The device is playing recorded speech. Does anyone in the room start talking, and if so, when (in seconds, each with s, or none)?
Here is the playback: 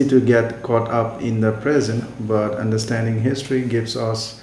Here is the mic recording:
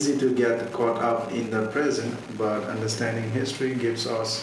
none